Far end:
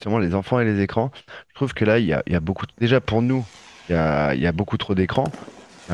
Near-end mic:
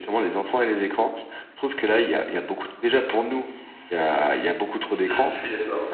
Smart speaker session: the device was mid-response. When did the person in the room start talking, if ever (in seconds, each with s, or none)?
4.9 s